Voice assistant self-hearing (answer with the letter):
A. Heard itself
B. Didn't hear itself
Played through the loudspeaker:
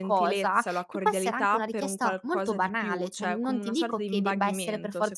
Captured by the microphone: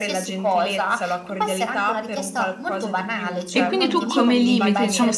A